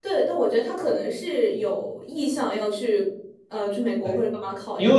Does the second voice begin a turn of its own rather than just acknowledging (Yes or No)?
Yes